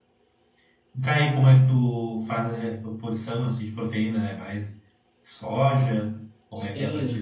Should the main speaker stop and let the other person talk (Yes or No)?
Yes